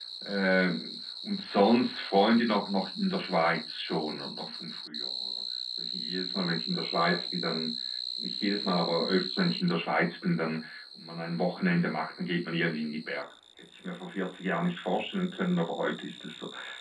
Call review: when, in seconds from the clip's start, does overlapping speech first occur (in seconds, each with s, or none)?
none